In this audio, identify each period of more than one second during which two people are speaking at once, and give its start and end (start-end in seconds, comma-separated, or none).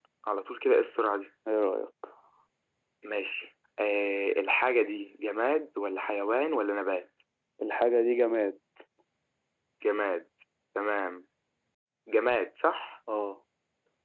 none